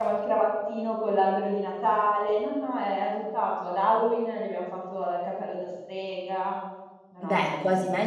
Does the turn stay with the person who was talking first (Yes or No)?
No